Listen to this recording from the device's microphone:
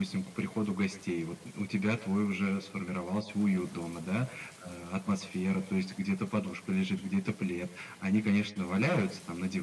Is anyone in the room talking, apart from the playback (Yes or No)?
No